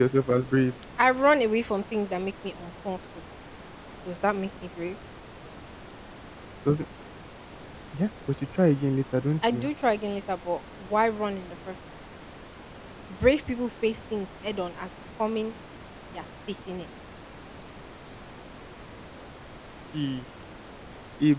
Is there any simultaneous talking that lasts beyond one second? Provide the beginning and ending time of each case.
none

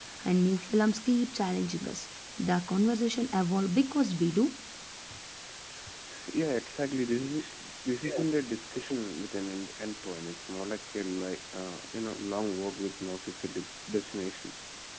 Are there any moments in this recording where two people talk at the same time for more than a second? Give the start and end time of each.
none

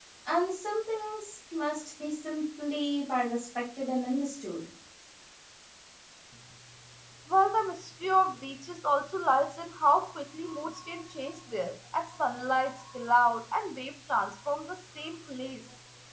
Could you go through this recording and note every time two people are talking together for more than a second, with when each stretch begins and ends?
none

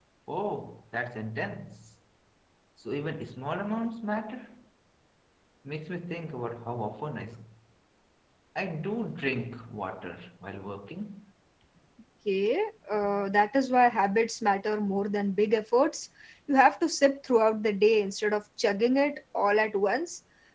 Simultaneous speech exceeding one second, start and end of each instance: none

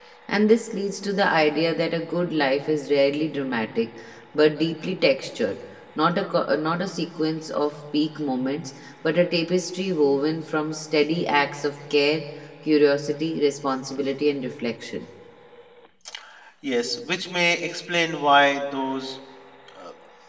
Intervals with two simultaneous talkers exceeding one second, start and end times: none

